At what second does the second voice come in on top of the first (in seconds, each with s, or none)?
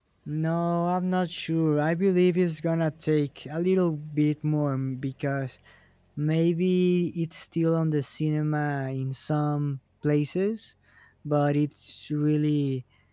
none